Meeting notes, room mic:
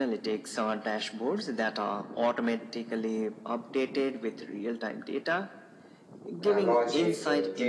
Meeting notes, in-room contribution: present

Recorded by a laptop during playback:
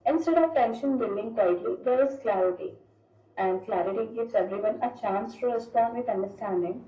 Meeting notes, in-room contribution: none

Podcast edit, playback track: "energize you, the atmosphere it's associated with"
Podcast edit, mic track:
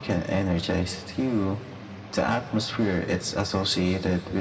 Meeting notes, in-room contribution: none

